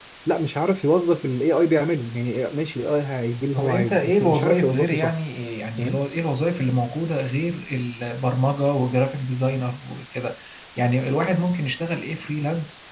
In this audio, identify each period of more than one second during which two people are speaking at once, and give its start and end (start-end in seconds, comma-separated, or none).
3.5-5.1